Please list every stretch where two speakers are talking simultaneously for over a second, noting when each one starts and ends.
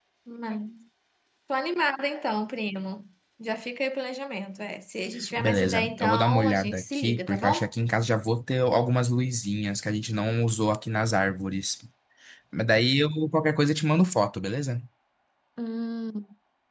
5.4-7.7

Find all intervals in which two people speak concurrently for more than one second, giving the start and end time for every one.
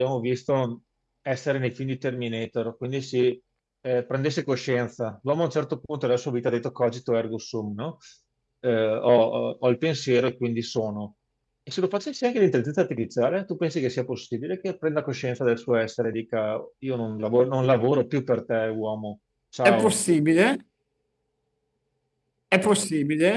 none

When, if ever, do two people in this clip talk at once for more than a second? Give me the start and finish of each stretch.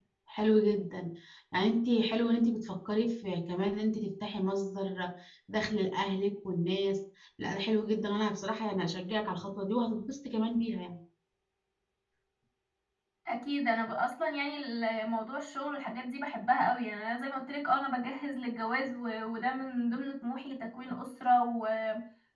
none

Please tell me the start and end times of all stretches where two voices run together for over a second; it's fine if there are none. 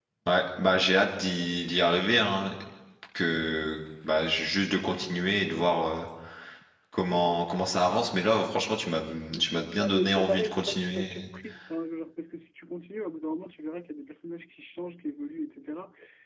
9.4-11.3

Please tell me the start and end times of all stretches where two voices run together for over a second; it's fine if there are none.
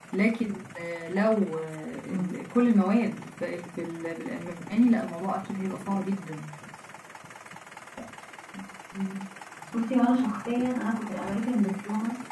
none

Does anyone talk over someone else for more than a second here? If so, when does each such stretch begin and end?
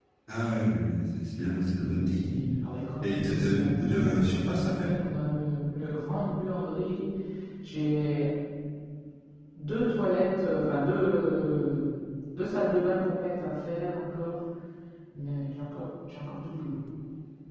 3.0-4.9

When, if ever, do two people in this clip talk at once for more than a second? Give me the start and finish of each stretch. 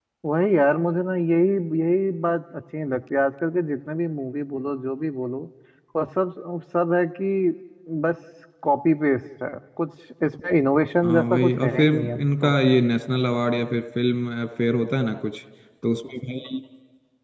11.0-12.5

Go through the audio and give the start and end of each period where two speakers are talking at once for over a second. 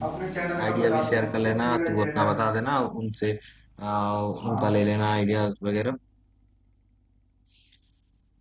0.6-2.3

